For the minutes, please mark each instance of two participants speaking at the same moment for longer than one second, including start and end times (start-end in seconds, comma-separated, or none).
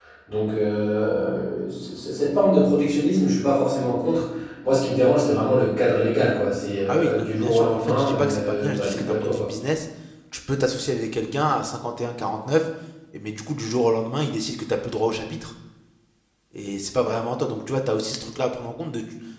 6.9-9.5